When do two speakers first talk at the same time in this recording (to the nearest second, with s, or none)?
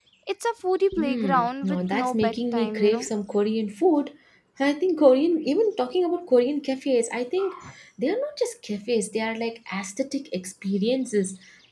1 s